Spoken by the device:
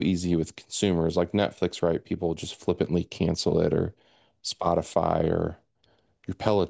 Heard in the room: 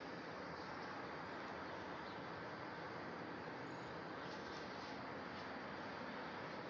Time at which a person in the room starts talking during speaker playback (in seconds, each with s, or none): none